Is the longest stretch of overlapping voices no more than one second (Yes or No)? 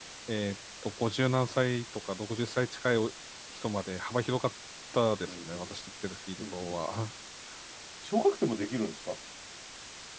Yes